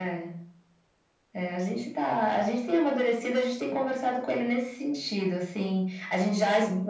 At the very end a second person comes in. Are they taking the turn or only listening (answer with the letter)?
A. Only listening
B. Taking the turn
A